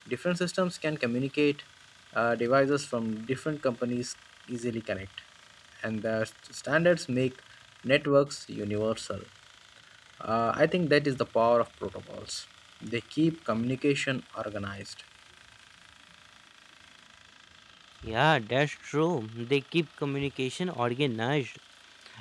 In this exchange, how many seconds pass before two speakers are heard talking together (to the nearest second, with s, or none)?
none